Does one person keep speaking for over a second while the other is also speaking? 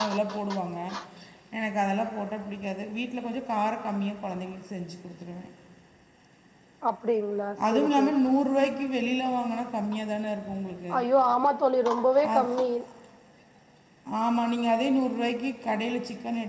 No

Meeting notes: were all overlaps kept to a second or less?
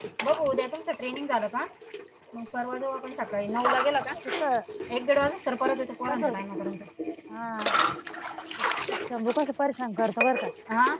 Yes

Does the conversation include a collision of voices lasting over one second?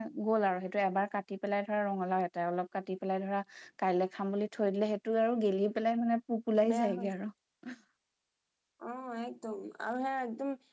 No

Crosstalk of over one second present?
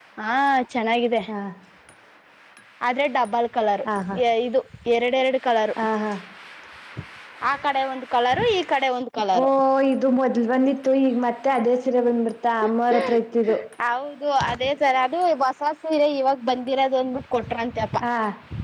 No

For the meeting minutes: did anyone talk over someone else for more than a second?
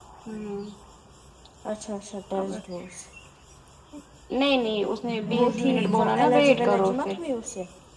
Yes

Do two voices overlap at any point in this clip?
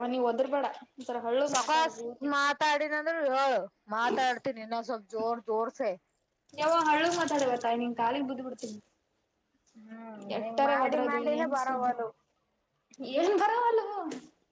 Yes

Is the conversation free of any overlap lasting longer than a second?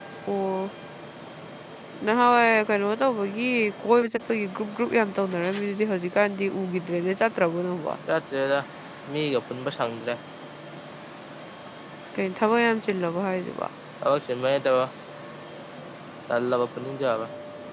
Yes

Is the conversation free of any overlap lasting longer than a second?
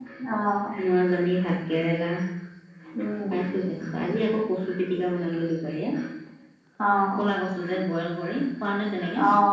Yes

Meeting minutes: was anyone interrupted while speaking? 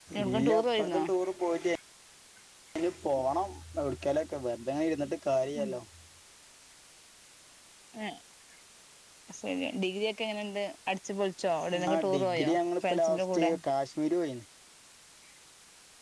Yes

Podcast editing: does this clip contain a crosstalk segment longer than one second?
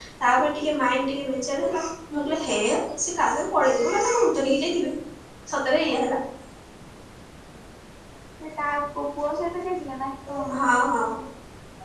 No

